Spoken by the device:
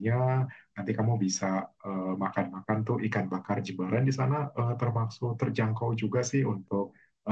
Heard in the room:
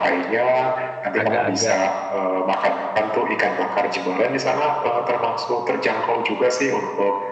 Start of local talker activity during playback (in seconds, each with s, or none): 1.2 s